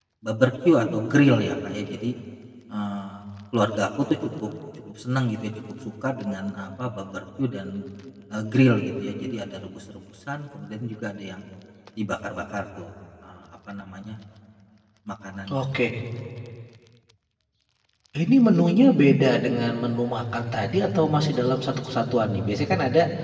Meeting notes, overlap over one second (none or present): none